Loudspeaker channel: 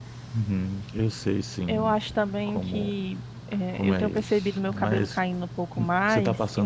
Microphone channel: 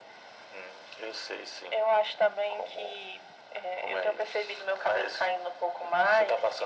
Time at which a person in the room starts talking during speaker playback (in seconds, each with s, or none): none